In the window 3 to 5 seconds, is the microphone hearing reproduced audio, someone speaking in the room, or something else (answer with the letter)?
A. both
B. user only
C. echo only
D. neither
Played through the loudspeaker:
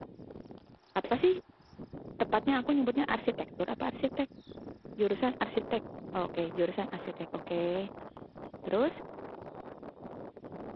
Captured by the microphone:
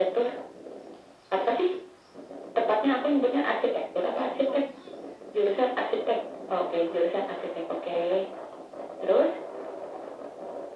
A